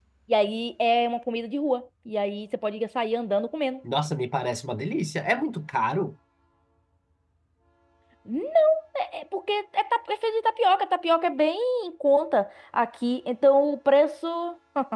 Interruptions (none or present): none